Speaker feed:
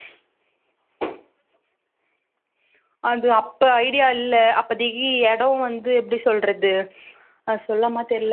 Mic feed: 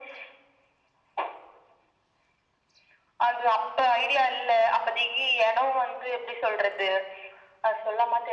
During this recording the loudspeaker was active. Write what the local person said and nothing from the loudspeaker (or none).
none